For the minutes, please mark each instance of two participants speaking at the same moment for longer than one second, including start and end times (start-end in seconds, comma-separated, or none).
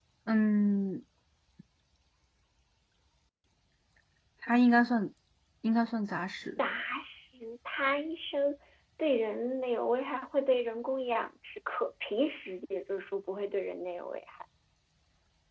none